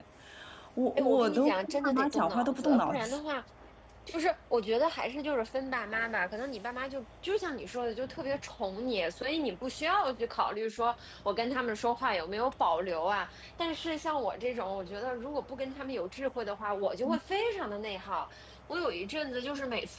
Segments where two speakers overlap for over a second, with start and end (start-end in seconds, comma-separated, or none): 0.9-3.2